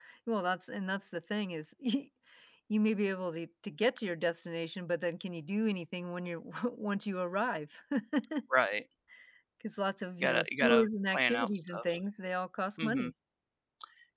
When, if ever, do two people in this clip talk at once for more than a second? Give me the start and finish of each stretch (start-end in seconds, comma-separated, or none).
10.2-11.8